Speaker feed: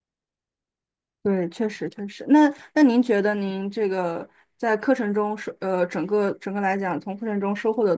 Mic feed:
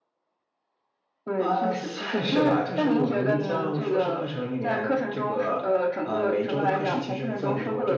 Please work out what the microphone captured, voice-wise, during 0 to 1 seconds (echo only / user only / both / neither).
neither